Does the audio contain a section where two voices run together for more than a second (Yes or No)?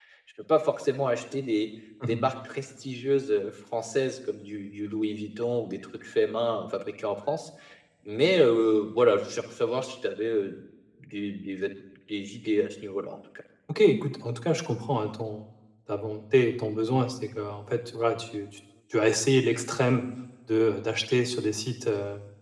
No